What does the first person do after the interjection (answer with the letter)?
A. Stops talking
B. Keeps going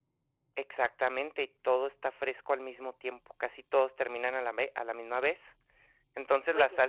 B